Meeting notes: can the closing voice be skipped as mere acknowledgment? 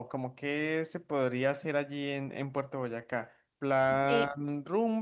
Yes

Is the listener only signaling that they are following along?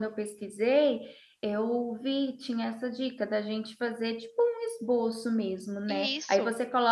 Yes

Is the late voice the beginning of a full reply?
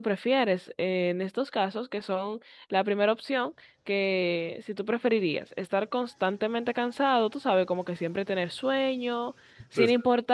No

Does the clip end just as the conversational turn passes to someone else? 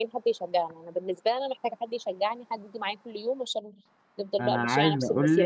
Yes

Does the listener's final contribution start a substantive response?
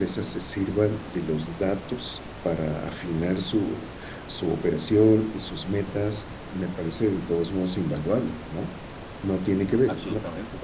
Yes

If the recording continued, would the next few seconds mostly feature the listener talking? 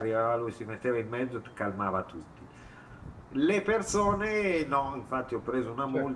No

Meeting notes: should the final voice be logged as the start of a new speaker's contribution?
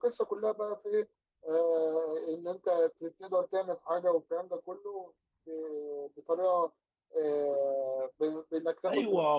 Yes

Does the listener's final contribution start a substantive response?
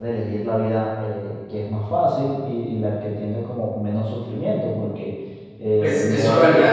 Yes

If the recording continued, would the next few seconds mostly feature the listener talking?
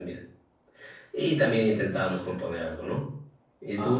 Yes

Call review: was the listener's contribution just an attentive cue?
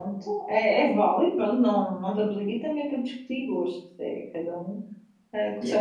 Yes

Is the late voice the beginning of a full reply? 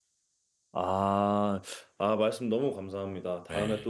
No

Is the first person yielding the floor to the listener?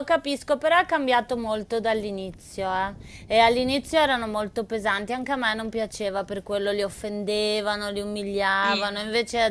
No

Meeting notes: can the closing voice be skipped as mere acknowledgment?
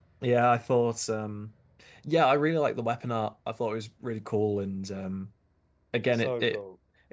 Yes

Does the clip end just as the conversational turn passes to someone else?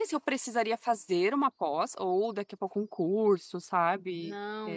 Yes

